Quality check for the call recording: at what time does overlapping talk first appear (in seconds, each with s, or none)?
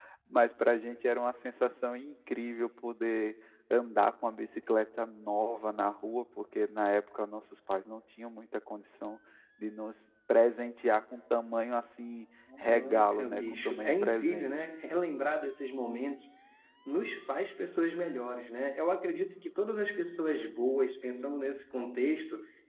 12.5 s